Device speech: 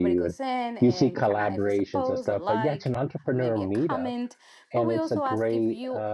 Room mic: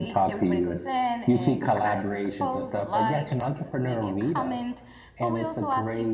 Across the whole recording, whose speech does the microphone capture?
echo only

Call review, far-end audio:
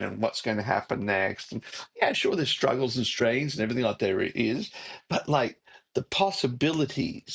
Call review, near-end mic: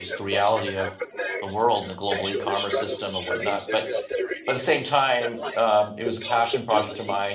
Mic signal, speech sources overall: both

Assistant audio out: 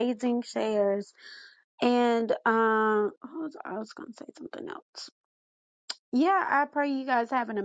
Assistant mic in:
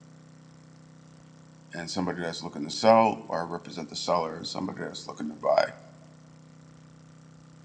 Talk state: user only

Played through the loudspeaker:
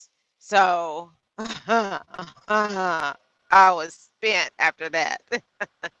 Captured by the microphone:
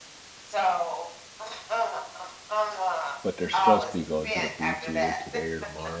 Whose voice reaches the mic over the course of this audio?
both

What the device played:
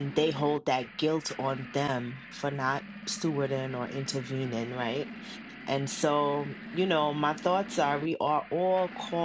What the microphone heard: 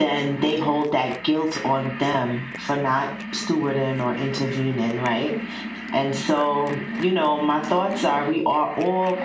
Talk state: echo only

